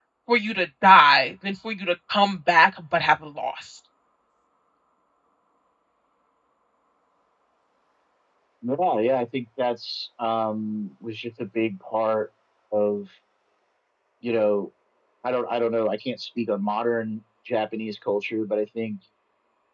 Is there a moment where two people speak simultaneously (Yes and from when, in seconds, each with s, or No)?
No